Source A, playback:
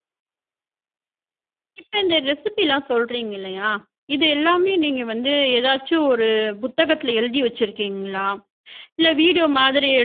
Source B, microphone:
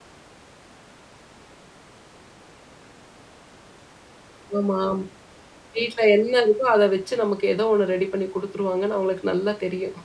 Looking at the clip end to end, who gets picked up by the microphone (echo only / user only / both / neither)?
user only